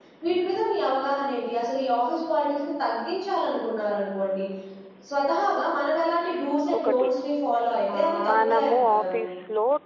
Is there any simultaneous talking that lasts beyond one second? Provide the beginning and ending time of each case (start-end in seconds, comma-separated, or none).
7.9-9.2